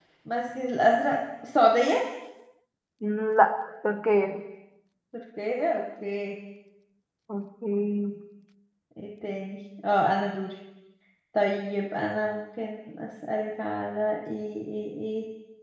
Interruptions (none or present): none